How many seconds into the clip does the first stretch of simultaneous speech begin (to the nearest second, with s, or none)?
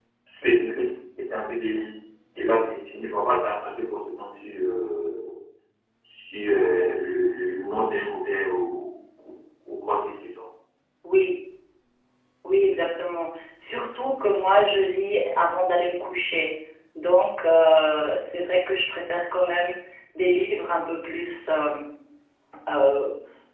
none